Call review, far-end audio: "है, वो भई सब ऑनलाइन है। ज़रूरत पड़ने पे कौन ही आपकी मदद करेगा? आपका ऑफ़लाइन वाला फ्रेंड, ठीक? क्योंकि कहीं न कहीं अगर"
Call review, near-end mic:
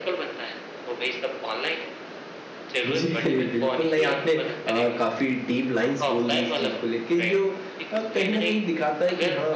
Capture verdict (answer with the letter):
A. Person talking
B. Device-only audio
A